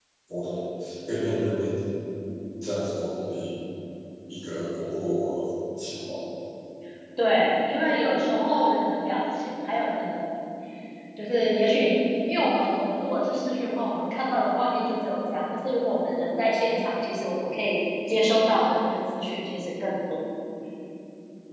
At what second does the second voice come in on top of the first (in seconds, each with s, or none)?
none